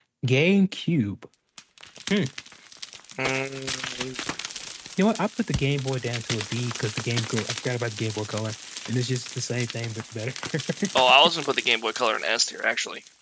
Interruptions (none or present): none